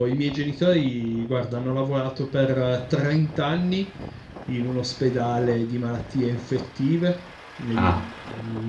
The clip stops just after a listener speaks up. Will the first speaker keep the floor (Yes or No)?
Yes